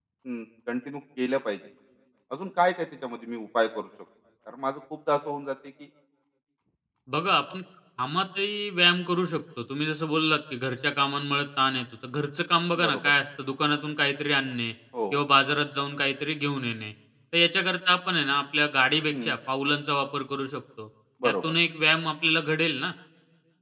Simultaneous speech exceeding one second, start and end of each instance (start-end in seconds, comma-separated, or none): none